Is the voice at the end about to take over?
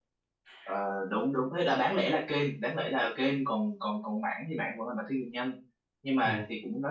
No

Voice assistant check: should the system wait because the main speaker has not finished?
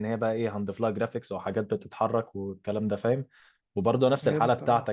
Yes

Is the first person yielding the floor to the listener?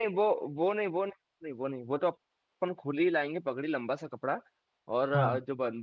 No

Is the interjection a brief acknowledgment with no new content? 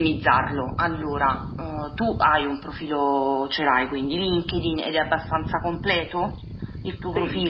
No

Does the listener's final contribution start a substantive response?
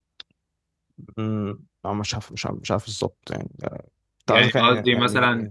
Yes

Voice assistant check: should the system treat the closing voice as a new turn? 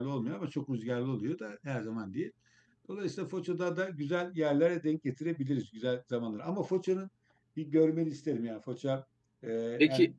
No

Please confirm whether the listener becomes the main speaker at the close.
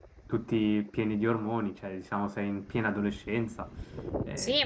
Yes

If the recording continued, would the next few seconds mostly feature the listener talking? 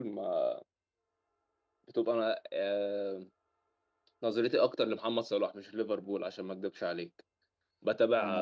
No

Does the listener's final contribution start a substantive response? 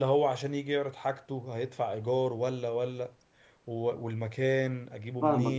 Yes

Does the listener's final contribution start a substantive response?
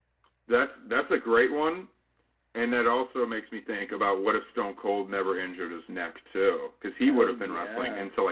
No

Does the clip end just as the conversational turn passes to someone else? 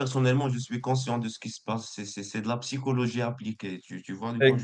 Yes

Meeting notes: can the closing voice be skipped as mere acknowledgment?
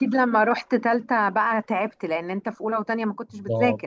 No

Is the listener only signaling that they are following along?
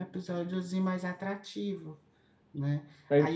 Yes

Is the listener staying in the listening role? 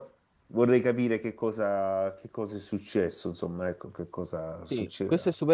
No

